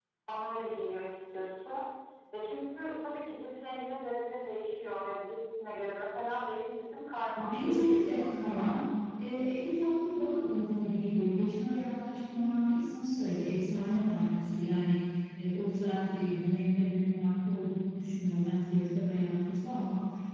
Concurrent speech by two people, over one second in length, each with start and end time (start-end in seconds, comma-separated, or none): 7.4-8.8